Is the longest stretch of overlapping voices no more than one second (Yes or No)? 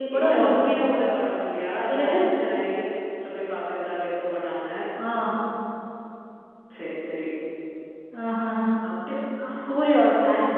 Yes